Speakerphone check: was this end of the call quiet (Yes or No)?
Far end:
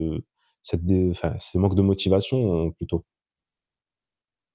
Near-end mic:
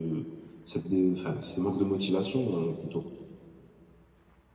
Yes